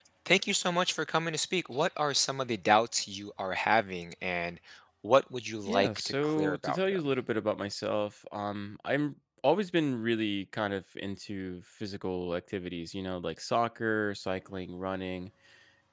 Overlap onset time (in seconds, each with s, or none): 5.7 s